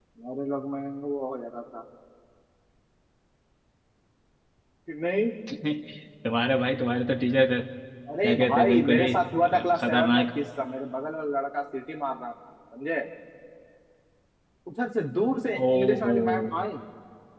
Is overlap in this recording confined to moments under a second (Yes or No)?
No